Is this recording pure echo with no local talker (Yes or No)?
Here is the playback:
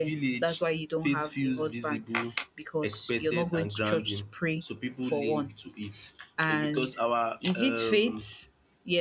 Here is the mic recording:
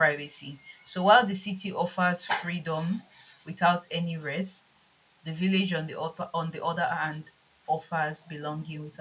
No